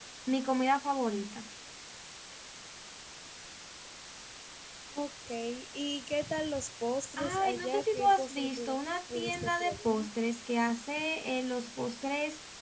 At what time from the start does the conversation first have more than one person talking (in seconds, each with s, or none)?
7.2 s